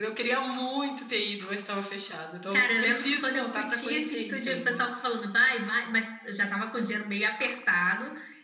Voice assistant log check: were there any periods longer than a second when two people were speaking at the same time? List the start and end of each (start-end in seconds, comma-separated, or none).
2.5-4.8